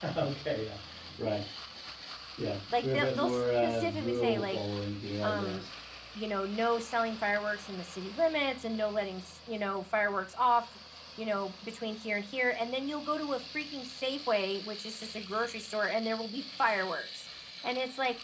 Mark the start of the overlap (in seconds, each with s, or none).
2.7 s